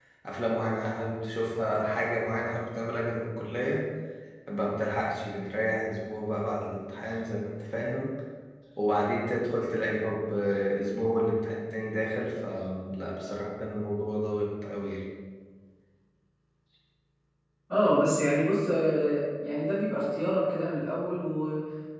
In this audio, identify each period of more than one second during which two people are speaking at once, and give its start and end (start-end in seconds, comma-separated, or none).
none